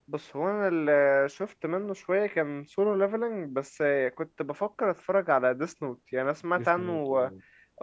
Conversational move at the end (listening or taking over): listening